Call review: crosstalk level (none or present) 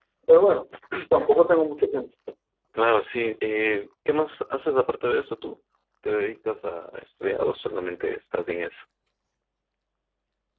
none